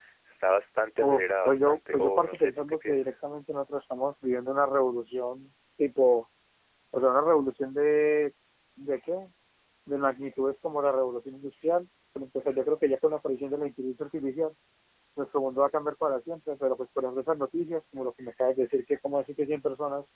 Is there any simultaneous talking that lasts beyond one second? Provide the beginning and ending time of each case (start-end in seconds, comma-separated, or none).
1.0-3.0